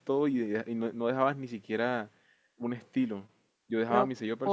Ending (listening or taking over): taking over